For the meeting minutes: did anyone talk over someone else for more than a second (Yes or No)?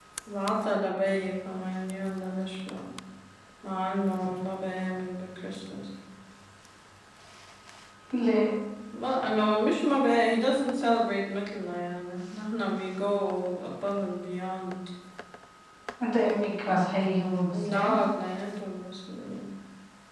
No